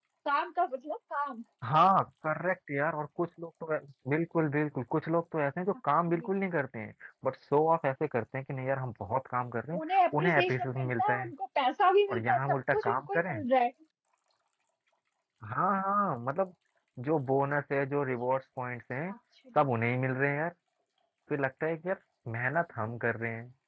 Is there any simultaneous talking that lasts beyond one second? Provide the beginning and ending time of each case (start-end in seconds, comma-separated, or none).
9.9-11.3, 12.1-13.4